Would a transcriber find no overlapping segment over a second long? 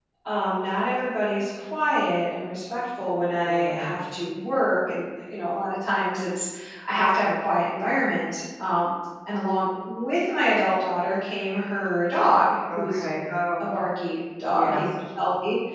Yes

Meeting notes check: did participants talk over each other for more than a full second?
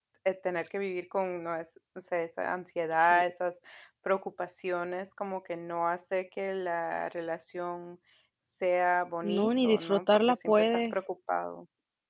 Yes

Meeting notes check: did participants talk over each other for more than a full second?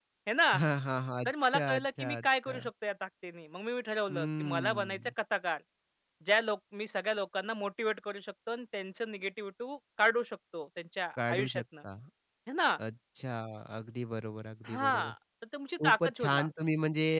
Yes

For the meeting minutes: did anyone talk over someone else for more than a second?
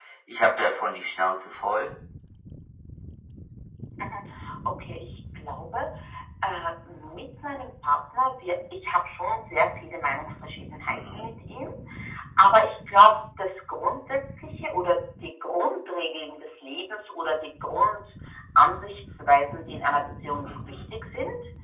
No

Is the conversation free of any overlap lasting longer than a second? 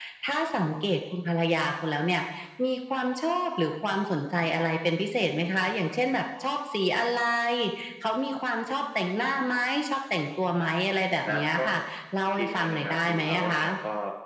No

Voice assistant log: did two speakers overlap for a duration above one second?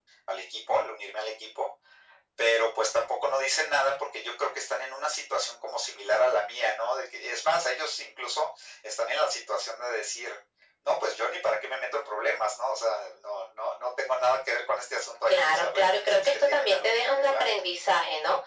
Yes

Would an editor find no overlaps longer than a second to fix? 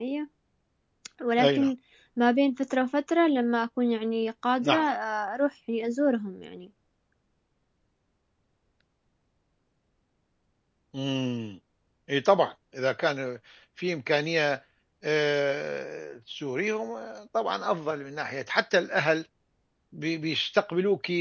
Yes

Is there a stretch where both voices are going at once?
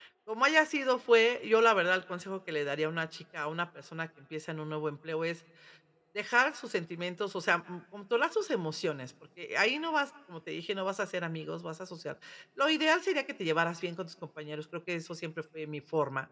No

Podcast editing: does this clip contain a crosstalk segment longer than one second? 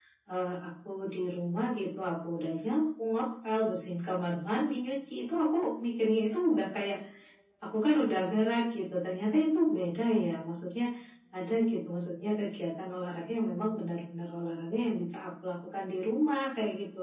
No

